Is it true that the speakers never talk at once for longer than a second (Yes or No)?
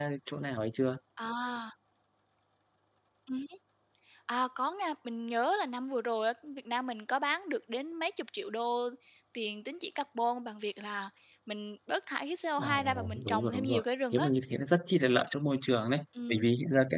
No